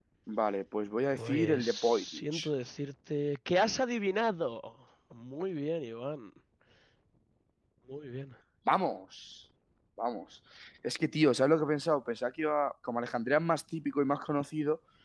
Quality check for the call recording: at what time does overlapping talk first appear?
1.1 s

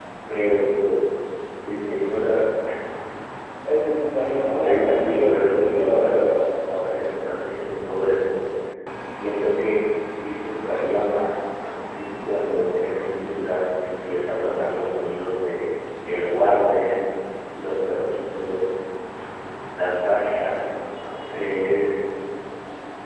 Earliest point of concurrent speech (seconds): 4.5 s

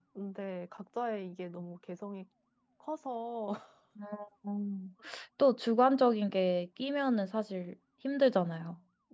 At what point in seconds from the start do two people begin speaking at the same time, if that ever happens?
none

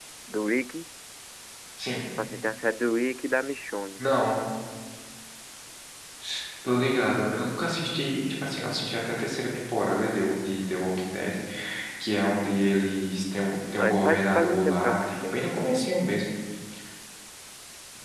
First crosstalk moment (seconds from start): 13.8 s

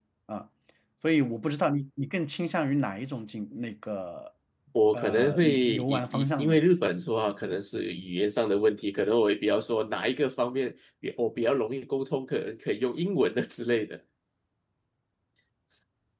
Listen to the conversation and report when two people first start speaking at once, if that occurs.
4.9 s

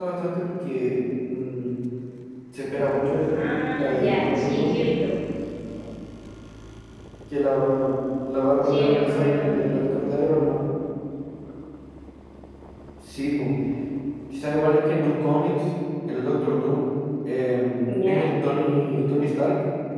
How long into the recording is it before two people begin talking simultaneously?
3.3 s

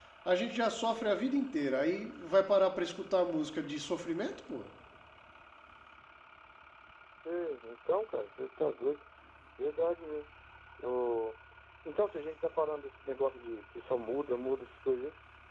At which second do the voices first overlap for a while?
none

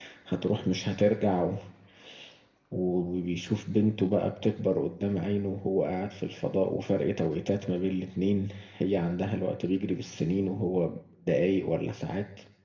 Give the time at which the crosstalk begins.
none

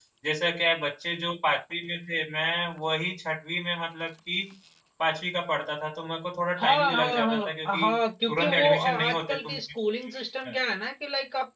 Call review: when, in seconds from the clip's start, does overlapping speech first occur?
6.6 s

